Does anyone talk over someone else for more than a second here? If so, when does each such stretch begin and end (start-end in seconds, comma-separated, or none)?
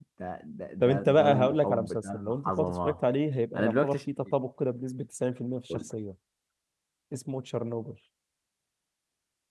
0.8-3.0